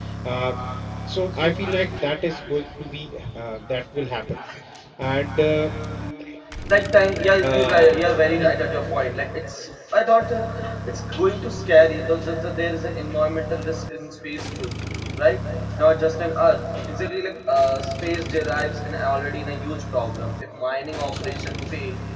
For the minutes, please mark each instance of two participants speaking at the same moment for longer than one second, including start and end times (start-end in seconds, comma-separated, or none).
none